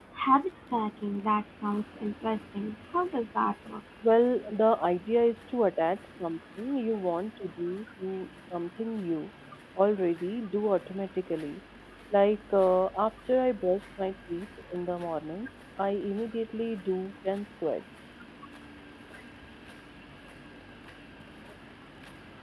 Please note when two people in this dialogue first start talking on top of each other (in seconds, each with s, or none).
none